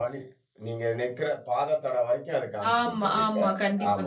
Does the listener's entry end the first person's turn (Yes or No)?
Yes